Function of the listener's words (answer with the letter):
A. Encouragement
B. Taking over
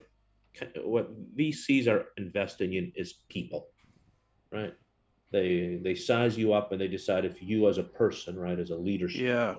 A